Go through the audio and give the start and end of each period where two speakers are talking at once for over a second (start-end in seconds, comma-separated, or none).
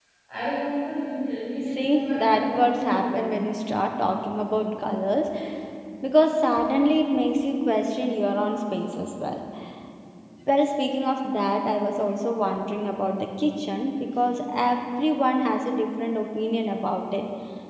1.8-3.3